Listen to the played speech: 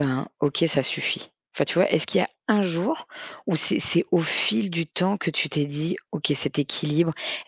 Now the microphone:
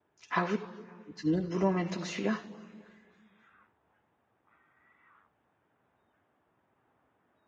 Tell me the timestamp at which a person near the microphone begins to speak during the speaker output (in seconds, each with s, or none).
0.3 s